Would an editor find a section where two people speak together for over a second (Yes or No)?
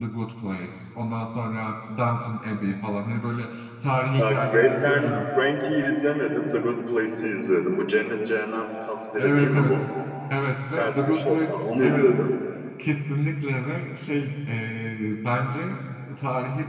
Yes